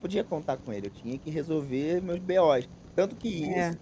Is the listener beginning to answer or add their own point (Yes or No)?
No